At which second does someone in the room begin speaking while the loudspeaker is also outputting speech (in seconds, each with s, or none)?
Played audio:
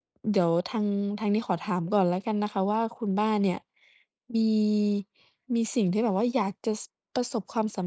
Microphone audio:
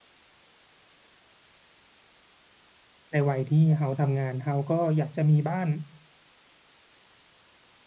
3.1 s